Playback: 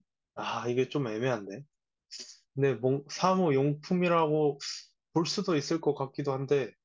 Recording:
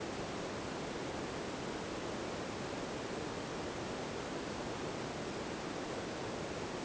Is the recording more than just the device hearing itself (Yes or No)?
No